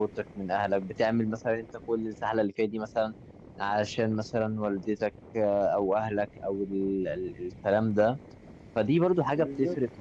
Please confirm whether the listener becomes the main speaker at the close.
No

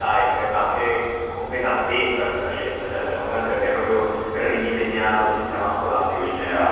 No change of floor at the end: No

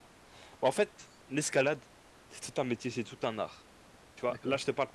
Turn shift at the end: No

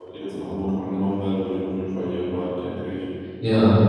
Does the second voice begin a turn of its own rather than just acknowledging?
Yes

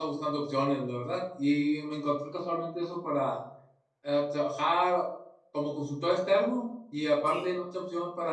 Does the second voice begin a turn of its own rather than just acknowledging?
No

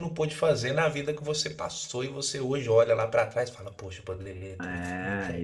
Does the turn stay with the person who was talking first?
No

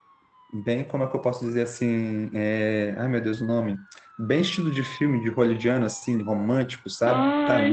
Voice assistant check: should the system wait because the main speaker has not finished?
No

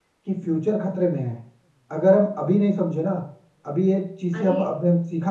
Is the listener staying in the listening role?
Yes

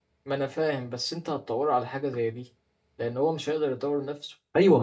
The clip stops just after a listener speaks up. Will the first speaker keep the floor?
No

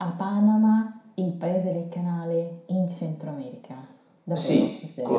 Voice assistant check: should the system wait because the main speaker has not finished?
No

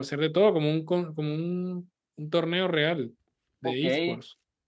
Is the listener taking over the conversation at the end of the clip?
Yes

